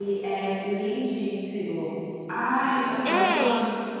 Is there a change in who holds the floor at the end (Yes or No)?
Yes